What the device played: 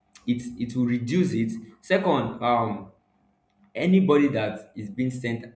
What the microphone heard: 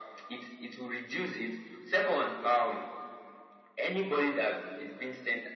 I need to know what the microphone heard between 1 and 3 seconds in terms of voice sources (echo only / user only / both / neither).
echo only